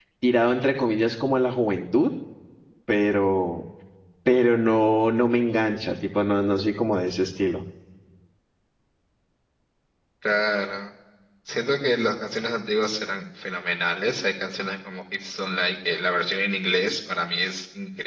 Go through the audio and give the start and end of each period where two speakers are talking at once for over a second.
none

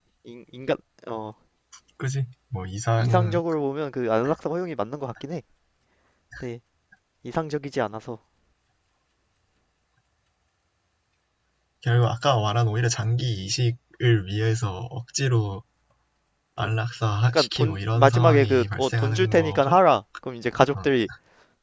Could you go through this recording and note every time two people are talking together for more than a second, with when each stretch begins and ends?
17.3-19.8

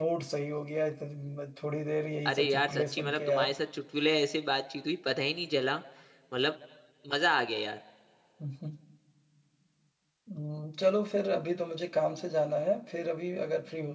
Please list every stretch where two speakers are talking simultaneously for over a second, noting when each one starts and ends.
2.3-3.5

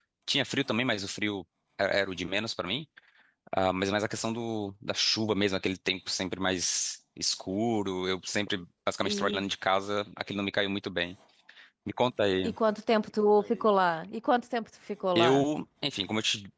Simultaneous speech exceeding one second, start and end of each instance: none

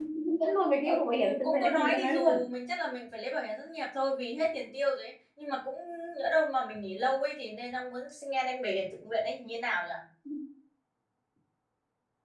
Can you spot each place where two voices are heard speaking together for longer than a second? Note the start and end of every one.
0.8-2.3

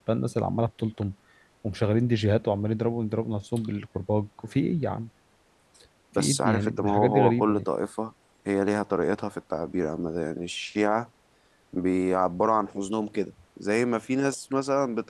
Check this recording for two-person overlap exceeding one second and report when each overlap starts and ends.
6.2-7.7

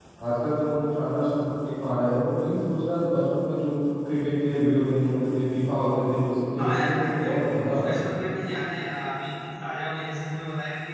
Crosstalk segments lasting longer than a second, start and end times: 6.6-8.1

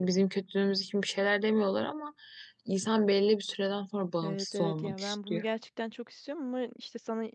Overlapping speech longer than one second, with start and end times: 4.2-5.4

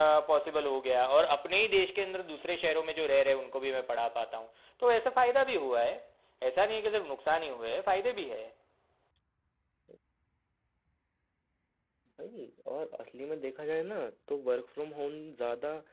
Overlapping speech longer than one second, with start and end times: none

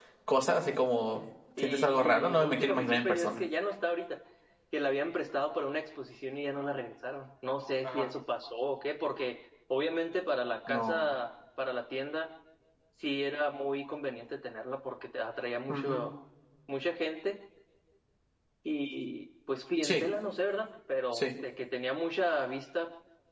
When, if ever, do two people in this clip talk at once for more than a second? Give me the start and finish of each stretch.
1.6-3.4

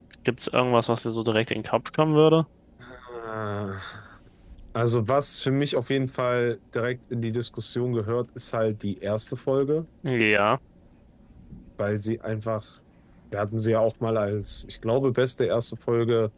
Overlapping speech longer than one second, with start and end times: none

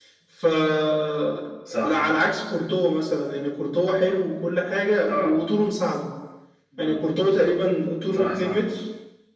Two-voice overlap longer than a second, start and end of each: none

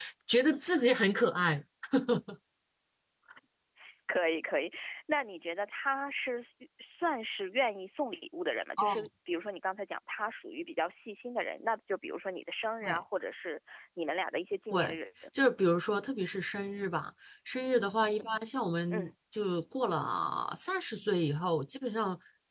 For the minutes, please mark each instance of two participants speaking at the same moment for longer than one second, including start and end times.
none

